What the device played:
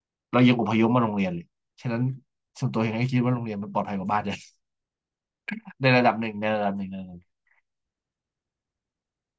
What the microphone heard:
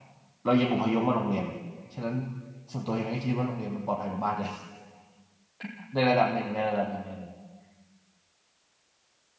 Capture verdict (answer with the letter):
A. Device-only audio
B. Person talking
A